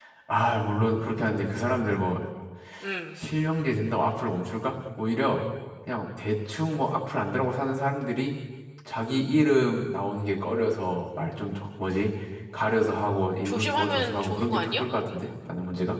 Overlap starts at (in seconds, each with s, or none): 13.4 s